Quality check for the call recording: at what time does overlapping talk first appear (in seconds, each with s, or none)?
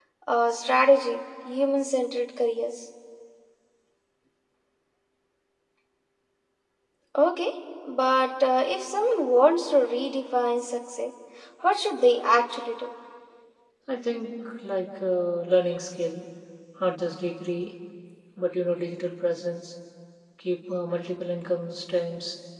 none